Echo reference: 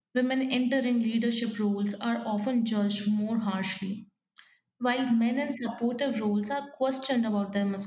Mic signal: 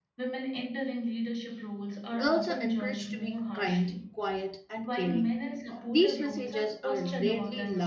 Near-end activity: present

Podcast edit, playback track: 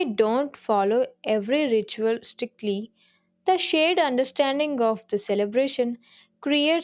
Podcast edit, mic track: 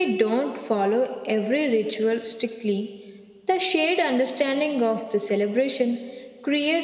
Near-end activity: none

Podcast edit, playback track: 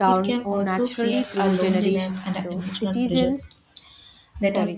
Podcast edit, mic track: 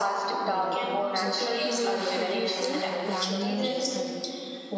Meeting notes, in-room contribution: present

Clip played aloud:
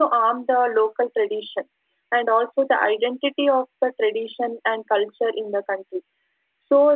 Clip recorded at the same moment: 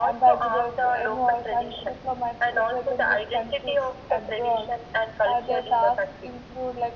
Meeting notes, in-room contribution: present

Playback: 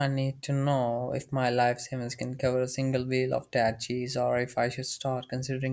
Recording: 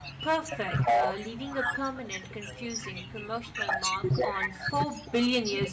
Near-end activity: present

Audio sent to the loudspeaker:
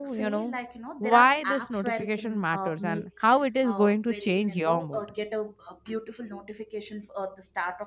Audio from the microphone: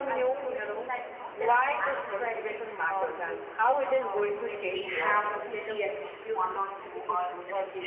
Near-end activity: present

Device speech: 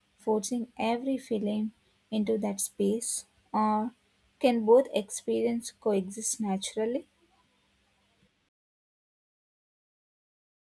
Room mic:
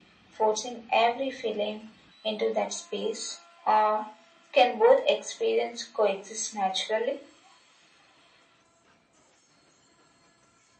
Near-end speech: none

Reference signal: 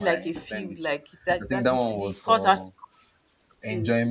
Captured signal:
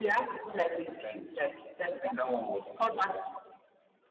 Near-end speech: none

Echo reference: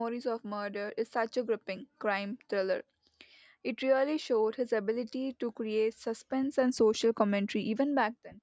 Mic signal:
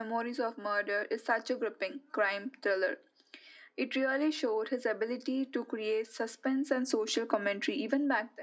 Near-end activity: none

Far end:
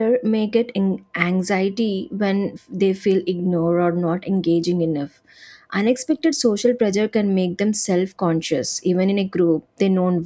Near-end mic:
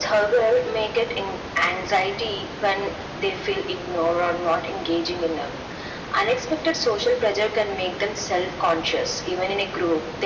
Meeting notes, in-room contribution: none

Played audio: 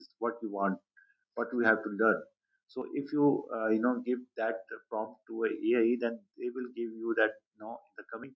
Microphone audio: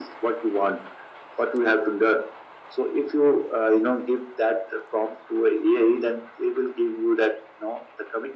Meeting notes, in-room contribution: none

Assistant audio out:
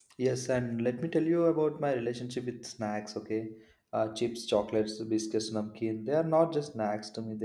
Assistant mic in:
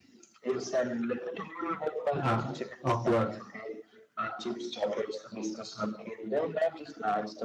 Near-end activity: present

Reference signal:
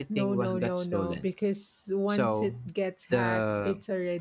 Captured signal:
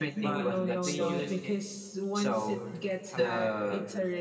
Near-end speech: present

